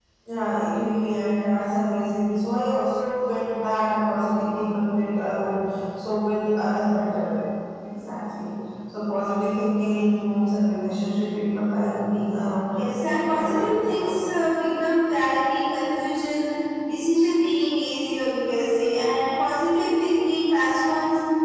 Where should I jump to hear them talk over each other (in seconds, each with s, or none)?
12.8 s